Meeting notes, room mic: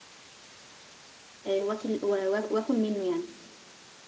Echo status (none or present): none